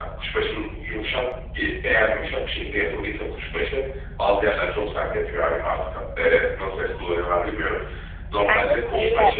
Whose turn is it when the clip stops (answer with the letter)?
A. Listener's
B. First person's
B